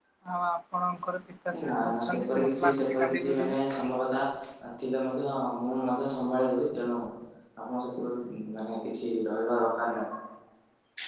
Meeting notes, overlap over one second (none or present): present